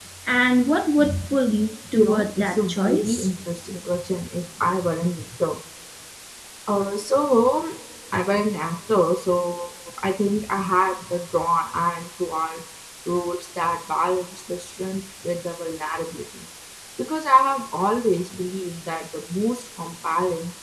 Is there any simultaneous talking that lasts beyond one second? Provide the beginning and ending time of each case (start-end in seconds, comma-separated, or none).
1.9-3.3